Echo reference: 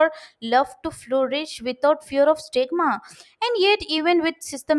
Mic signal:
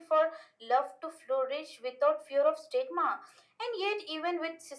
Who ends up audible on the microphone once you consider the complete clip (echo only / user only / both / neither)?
echo only